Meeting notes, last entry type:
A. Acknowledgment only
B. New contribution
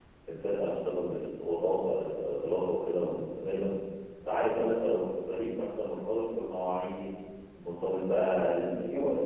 A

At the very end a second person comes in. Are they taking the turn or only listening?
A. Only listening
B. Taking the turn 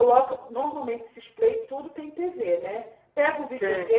A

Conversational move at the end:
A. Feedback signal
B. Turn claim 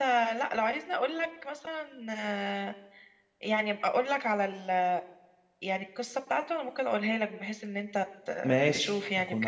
B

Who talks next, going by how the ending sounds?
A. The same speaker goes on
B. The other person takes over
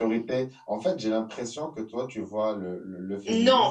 B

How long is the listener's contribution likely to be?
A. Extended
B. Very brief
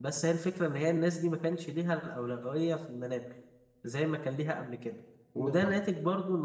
B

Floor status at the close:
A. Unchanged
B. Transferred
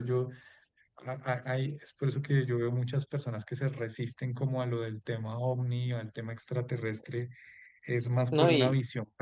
B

